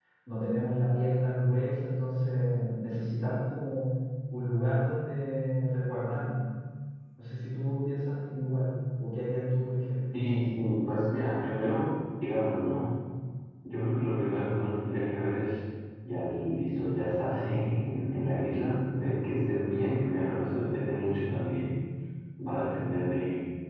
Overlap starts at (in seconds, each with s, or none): none